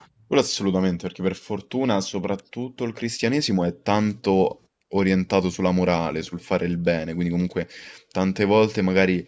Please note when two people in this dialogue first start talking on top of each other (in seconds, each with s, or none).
none